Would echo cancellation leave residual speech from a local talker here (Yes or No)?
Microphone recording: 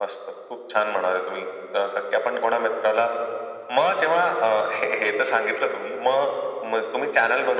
No